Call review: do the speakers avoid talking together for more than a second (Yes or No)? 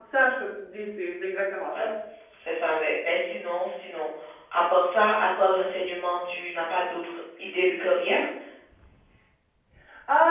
Yes